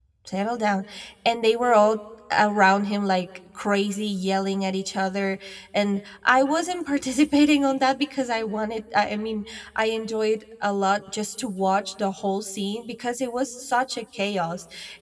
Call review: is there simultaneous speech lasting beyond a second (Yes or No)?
No